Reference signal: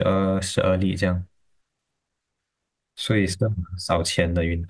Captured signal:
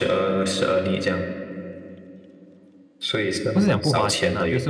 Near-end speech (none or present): present